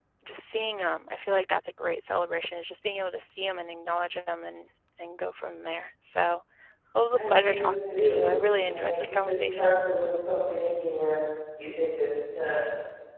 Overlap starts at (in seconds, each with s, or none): 7.1 s